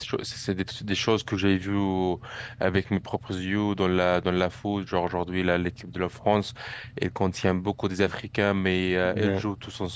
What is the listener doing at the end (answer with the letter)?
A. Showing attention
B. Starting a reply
A